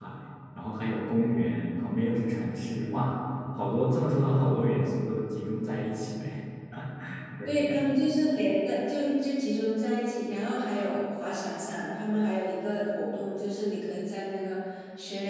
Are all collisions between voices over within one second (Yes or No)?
Yes